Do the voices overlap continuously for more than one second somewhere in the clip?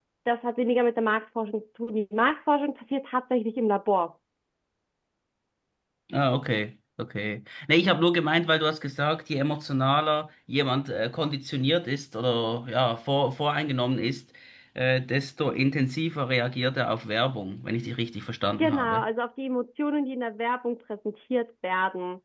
No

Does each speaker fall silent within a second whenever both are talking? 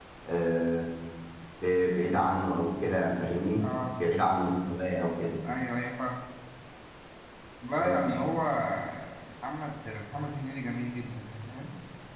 Yes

